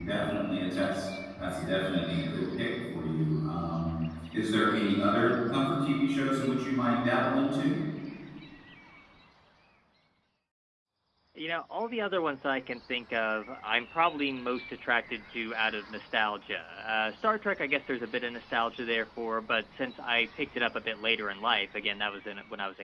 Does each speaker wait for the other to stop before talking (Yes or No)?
Yes